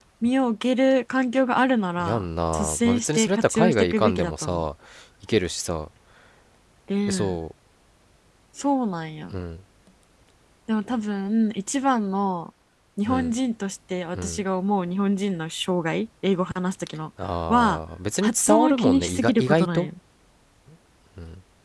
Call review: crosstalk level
present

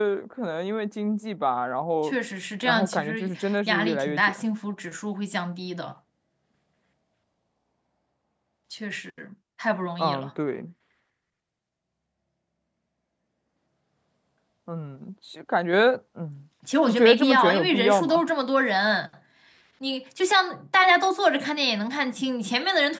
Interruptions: present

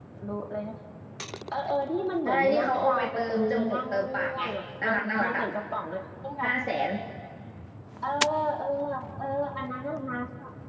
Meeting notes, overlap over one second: present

